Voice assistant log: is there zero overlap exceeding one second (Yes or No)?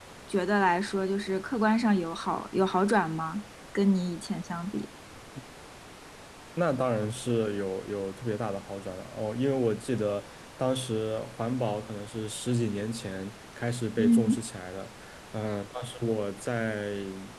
Yes